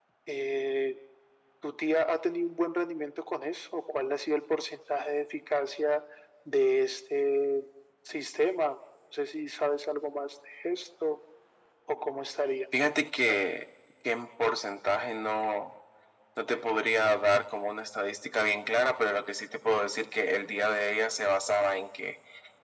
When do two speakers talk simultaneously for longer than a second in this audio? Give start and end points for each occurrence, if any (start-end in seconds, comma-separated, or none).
none